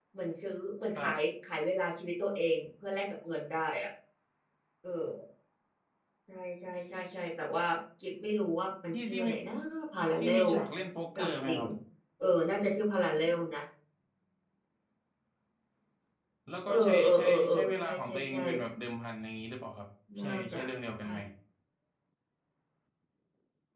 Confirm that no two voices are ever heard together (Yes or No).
No